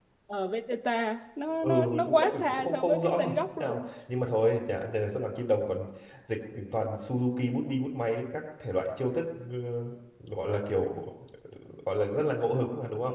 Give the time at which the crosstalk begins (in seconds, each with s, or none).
1.6 s